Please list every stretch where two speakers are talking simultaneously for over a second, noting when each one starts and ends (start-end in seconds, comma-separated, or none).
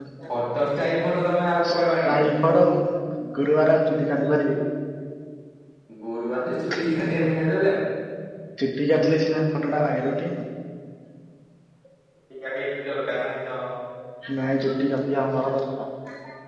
none